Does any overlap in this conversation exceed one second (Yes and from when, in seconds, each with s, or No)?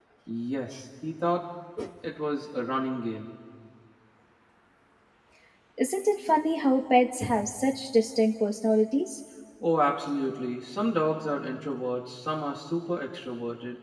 No